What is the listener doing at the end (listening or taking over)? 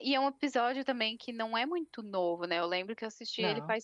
listening